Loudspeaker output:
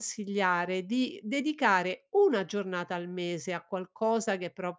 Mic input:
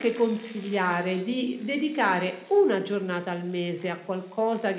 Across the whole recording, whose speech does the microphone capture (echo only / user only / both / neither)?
echo only